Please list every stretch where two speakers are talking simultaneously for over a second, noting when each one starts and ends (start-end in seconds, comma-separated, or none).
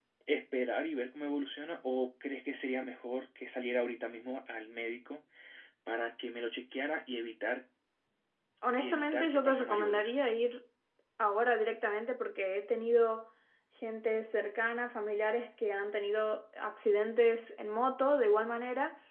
8.8-10.1